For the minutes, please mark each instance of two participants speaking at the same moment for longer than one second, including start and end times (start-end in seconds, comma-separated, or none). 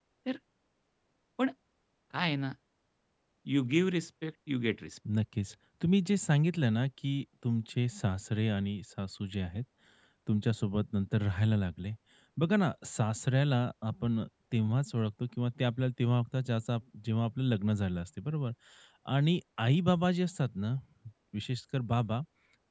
none